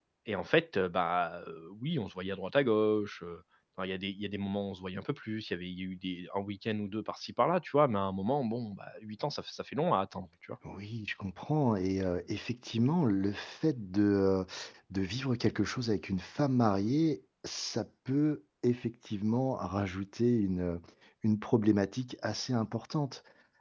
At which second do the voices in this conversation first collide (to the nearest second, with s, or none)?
none